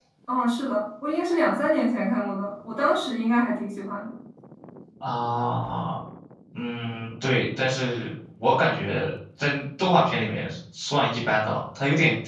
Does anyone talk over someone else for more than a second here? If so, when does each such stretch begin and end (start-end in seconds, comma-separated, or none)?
none